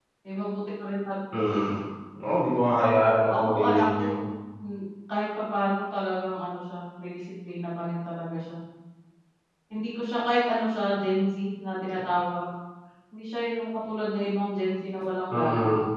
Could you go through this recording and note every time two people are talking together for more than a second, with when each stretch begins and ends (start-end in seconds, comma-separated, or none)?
2.8-4.1